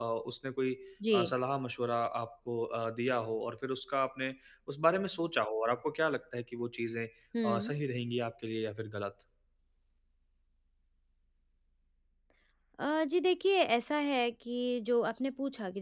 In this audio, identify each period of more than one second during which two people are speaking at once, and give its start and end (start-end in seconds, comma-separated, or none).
none